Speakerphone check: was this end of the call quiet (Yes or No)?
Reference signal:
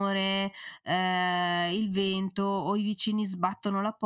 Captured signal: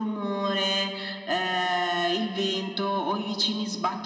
Yes